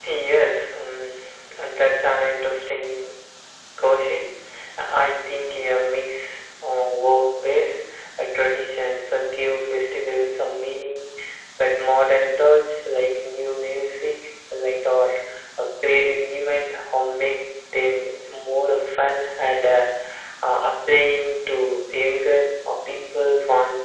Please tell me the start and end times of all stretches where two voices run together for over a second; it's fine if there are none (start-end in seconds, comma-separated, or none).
none